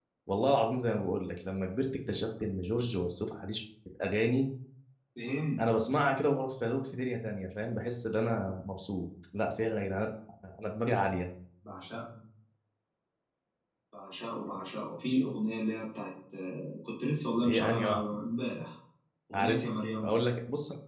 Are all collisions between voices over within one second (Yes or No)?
Yes